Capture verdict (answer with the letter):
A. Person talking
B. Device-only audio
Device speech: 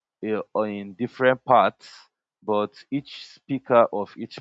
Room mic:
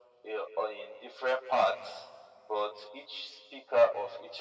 B